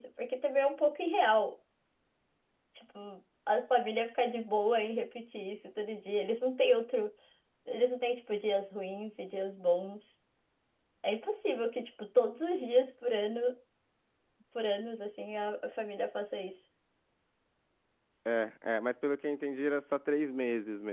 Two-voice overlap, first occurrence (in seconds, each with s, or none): none